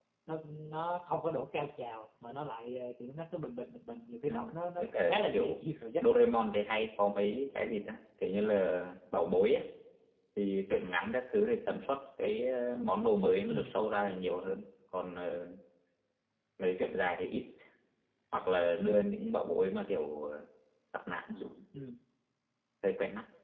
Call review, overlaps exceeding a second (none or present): present